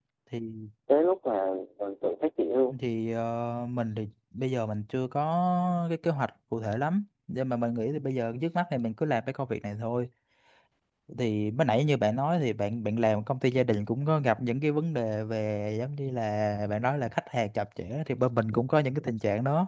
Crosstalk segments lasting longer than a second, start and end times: none

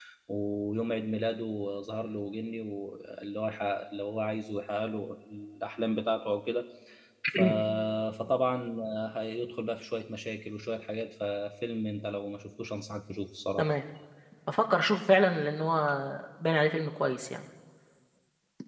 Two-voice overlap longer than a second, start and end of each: none

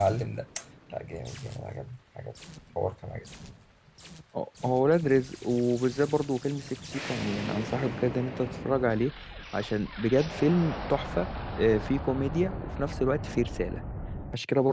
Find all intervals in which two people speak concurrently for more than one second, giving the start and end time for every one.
none

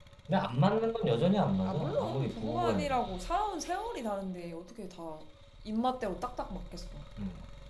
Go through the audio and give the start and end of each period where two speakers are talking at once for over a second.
1.6-3.0

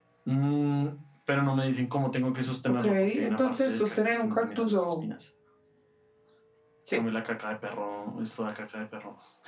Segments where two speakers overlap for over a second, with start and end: 2.8-5.0

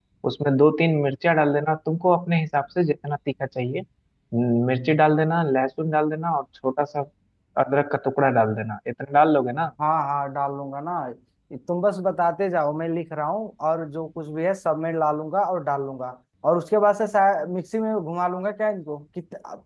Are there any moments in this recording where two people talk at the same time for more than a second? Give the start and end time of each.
none

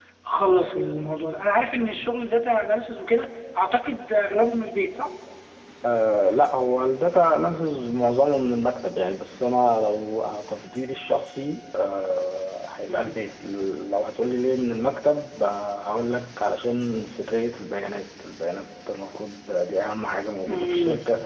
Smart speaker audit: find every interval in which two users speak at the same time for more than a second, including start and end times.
none

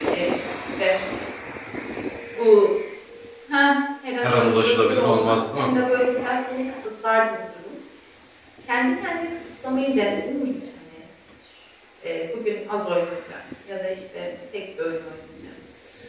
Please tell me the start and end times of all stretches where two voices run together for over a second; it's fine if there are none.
4.2-5.7

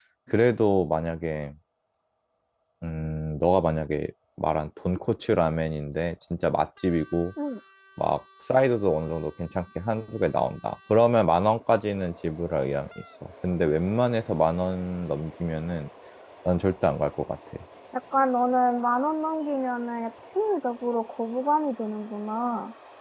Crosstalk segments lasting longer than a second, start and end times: none

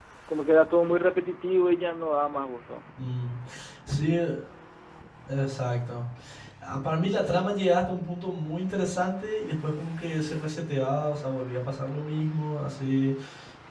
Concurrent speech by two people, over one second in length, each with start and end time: none

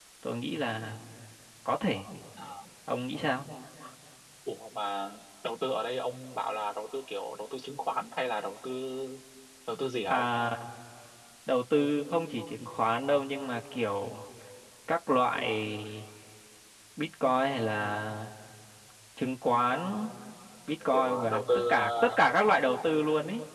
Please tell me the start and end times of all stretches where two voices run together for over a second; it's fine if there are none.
20.9-22.2

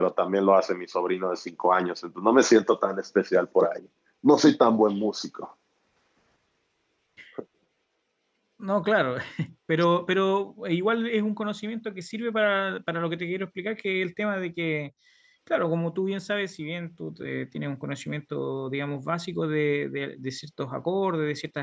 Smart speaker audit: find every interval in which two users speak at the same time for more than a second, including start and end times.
none

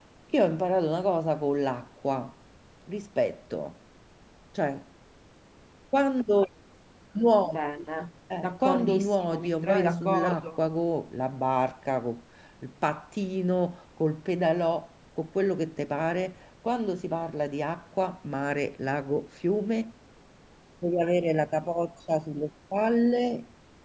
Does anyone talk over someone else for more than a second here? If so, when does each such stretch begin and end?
8.4-10.5

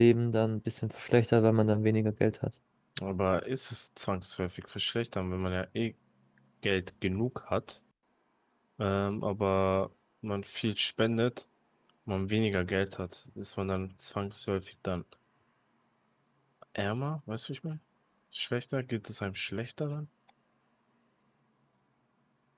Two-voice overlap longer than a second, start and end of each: none

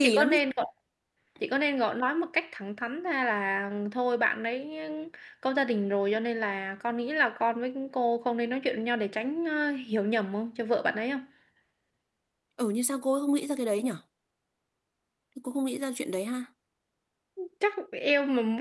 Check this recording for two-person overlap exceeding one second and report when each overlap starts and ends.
none

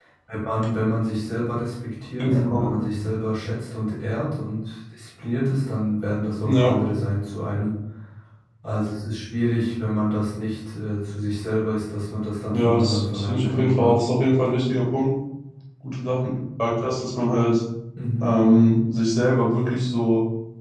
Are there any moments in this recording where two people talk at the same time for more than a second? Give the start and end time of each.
12.5-13.9

